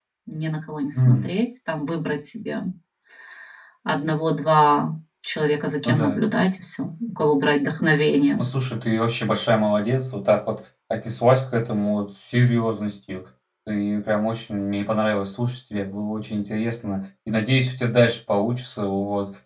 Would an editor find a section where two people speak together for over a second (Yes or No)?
No